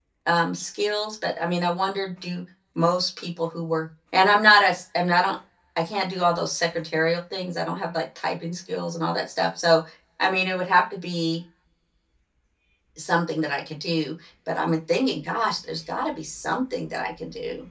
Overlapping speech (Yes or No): No